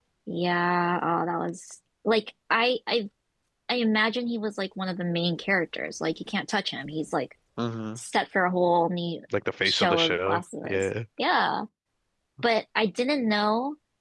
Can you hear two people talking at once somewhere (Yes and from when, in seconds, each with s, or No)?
Yes, from 9.6 s